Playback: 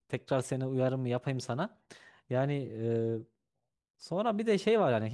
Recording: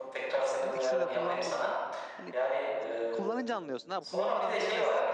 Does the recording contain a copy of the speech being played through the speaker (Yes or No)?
Yes